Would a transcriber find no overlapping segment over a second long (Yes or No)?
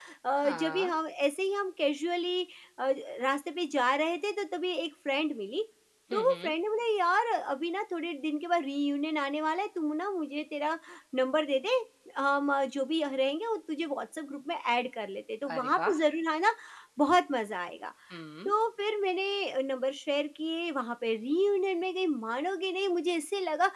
Yes